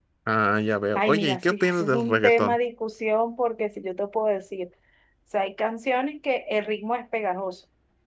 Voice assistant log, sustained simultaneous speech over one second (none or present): present